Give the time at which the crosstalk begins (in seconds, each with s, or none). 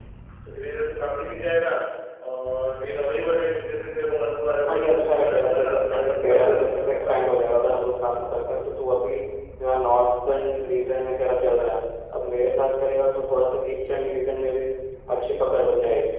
4.7 s